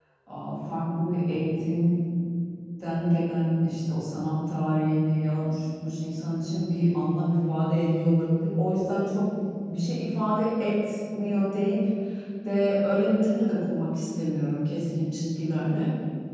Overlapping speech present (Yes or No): No